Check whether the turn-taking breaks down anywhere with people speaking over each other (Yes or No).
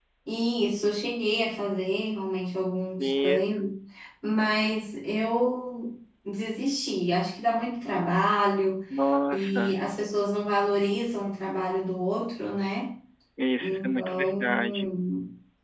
Yes